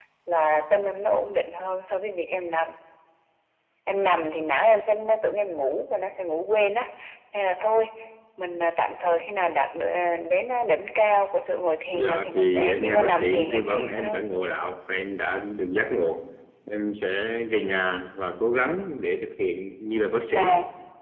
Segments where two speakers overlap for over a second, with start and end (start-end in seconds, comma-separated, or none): 11.9-14.2